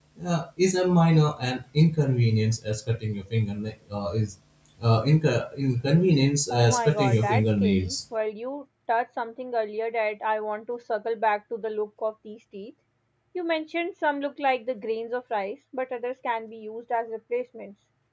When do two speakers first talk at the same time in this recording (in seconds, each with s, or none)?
6.5 s